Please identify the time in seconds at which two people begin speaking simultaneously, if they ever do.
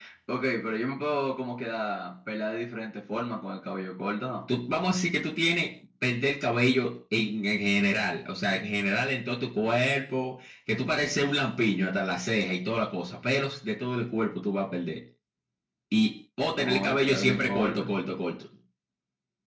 16.6 s

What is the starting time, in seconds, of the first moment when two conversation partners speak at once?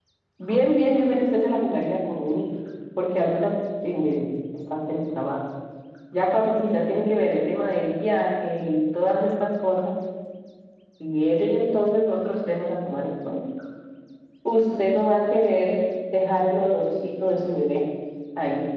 none

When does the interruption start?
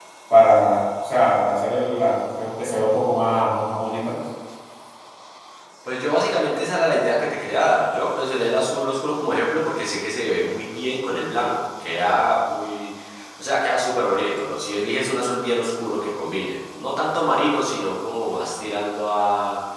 none

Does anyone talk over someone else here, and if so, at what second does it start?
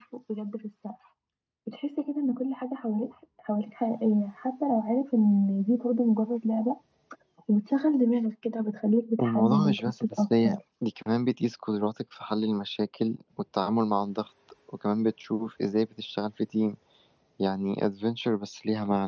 9.2 s

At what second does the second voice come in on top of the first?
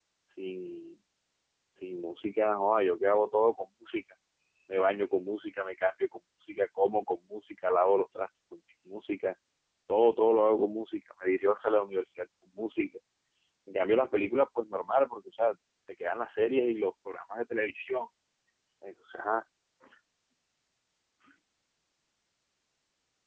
none

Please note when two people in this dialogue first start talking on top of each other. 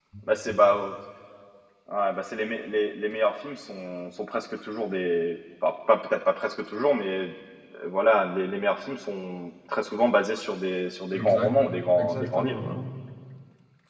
11.1 s

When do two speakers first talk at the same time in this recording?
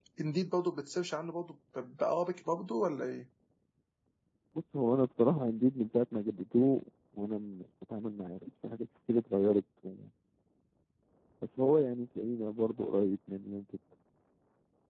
none

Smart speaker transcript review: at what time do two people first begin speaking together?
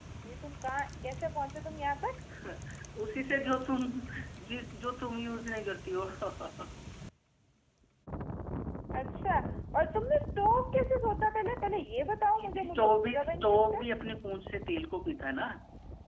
12.4 s

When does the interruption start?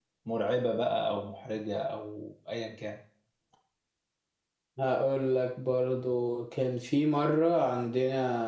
none

